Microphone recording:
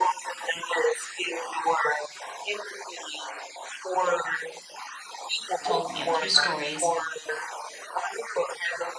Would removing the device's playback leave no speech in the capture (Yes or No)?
No